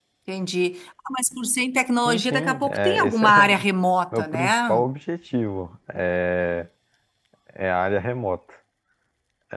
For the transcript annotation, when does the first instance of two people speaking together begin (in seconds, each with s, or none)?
2.0 s